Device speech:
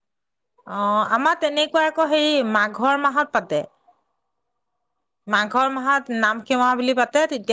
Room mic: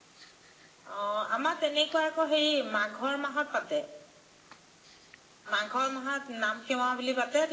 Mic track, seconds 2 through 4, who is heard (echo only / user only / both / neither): echo only